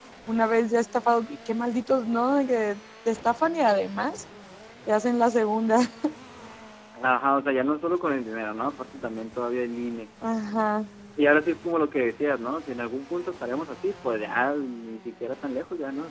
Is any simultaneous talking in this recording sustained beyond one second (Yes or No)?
No